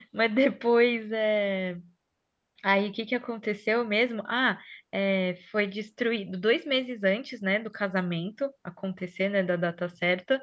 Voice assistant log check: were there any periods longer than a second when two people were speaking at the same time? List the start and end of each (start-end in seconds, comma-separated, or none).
none